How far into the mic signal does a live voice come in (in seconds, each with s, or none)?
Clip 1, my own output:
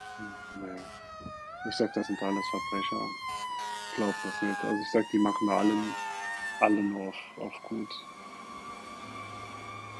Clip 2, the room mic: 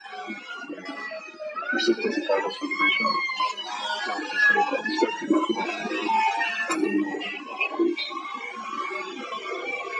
none